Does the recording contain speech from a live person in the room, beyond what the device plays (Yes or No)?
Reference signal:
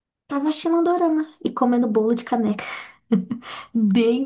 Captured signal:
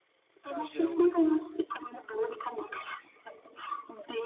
Yes